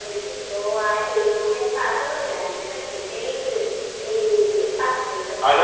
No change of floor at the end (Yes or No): No